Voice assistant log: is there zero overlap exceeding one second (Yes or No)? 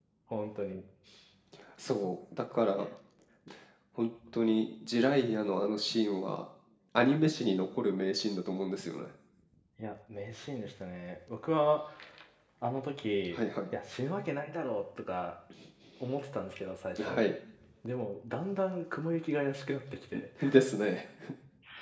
Yes